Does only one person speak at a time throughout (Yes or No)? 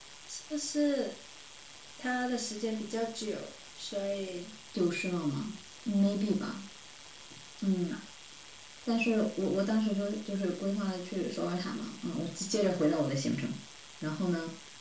Yes